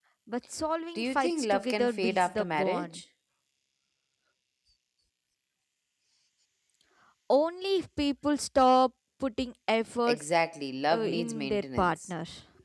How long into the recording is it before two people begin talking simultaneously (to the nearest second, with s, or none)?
1 s